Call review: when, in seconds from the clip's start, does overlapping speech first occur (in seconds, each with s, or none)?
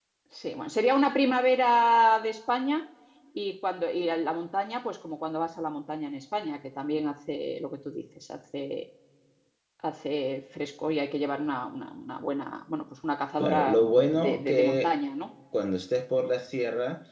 13.4 s